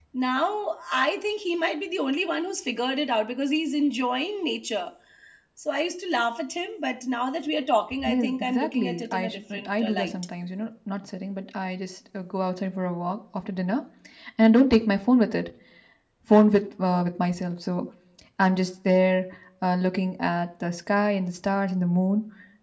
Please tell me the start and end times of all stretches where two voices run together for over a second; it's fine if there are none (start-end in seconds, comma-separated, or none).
8.1-10.1